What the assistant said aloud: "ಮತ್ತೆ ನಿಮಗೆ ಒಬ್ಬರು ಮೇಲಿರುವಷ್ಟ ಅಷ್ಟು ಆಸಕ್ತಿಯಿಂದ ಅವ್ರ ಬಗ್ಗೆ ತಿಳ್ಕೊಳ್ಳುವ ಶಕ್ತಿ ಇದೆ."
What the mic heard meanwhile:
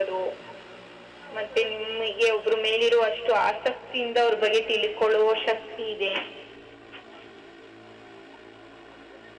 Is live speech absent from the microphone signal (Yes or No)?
Yes